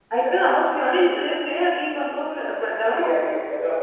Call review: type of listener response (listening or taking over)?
taking over